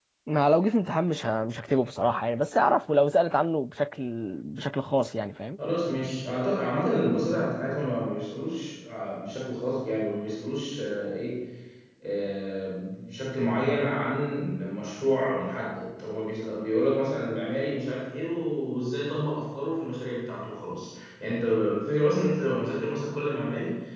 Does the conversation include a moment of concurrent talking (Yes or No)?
No